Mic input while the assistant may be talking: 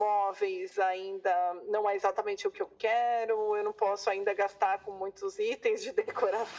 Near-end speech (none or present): none